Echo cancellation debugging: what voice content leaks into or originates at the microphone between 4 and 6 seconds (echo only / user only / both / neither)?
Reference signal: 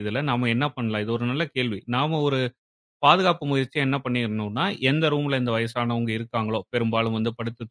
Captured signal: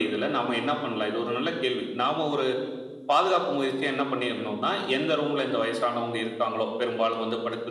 echo only